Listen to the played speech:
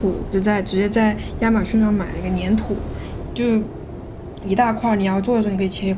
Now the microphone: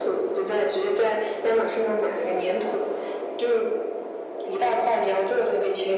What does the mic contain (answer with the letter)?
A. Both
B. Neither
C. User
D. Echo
D